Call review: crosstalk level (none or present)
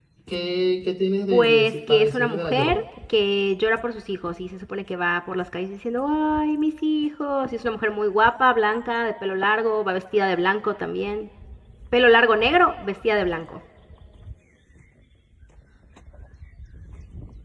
present